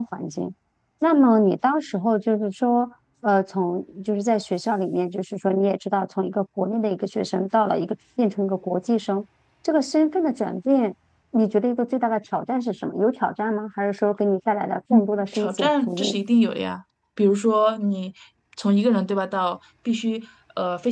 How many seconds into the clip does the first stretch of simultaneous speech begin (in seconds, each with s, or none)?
14.9 s